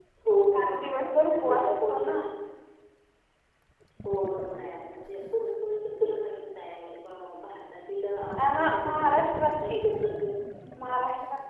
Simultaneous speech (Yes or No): Yes